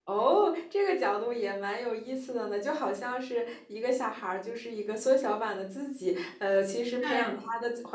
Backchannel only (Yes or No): Yes